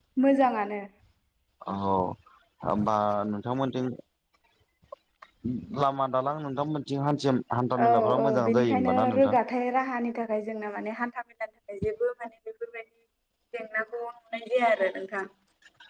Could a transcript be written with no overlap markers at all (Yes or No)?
No